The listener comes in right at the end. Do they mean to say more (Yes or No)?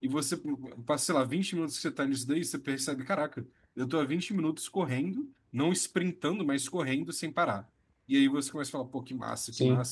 No